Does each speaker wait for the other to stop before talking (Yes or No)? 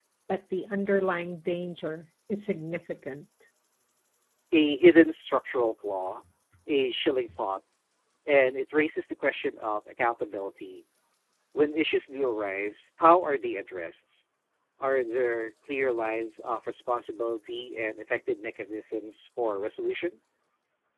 Yes